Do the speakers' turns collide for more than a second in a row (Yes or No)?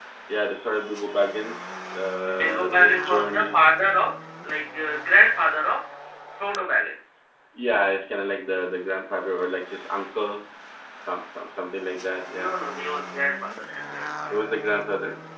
Yes